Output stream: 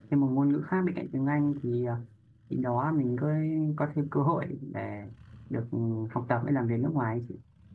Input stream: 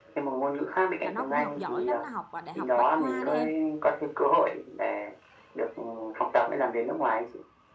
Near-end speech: present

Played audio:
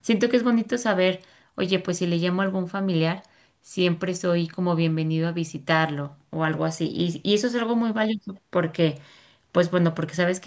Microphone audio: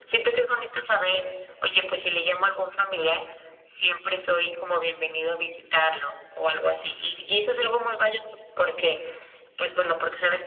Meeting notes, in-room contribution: none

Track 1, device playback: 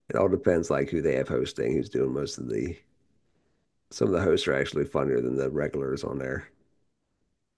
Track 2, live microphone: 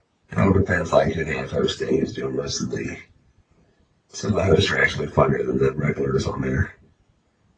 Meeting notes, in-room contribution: none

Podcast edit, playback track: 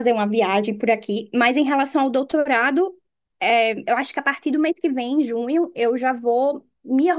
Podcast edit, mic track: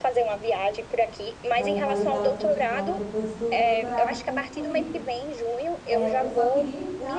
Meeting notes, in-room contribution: present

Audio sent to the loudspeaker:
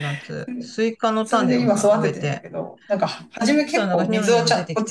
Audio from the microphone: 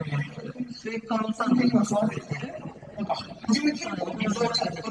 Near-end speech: present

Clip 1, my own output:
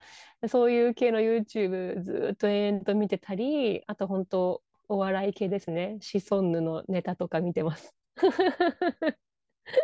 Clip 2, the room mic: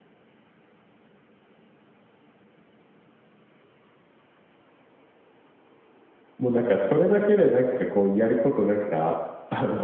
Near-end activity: present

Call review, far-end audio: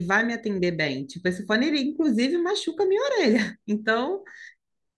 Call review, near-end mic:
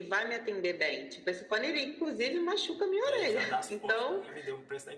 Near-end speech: present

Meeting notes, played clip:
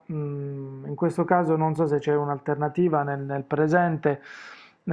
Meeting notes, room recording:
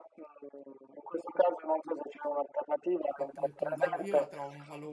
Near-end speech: present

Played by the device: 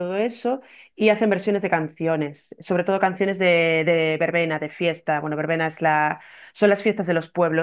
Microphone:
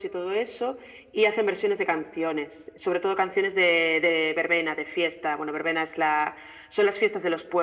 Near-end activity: none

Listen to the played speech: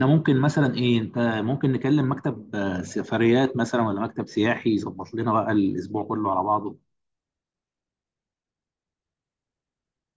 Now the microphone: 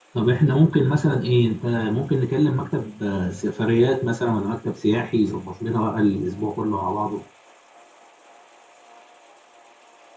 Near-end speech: none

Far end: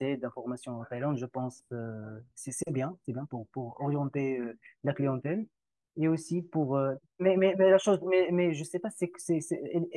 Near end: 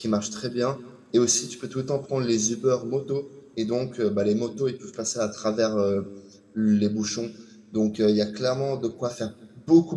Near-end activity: present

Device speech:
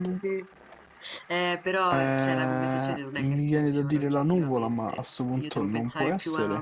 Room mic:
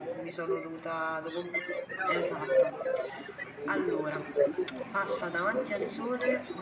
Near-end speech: present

